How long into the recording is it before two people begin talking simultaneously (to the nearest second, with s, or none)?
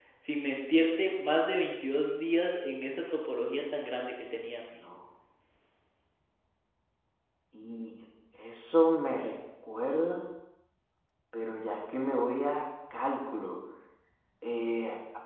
none